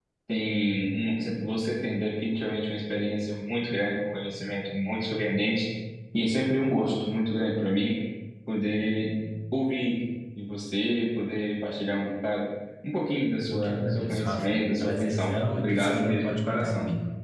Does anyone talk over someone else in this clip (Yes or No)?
Yes